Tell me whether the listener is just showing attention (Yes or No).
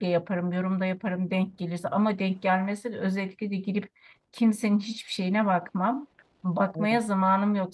Yes